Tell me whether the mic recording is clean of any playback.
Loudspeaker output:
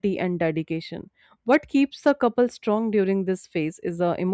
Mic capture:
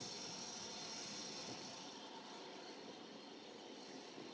Yes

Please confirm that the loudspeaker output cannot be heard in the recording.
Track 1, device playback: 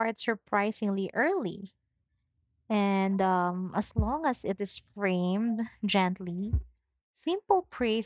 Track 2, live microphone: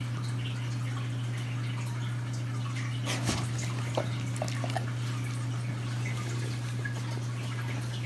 Yes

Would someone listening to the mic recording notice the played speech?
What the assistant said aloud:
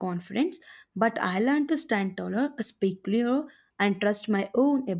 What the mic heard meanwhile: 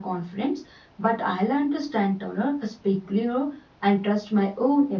Yes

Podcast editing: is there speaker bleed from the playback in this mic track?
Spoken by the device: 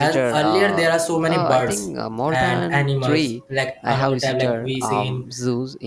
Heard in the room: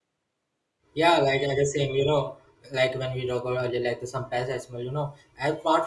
No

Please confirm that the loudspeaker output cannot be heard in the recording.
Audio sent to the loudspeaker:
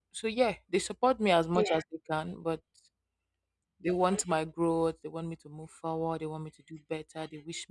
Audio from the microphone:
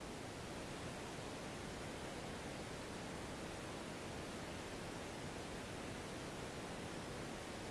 Yes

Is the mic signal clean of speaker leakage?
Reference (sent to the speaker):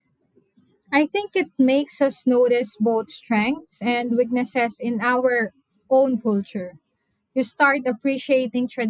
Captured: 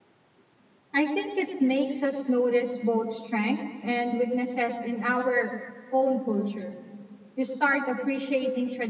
No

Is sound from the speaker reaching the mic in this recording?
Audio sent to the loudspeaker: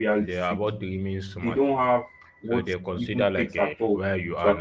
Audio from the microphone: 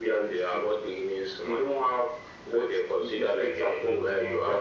Yes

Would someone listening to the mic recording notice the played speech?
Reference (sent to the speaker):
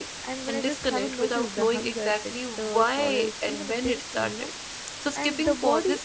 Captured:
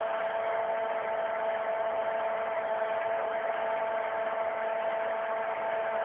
No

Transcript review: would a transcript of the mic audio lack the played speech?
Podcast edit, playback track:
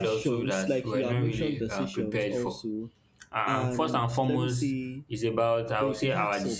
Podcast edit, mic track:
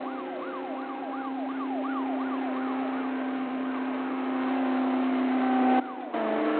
Yes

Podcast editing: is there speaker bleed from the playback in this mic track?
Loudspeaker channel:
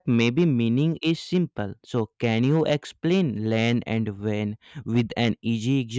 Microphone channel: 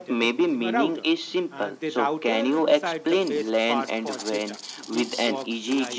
Yes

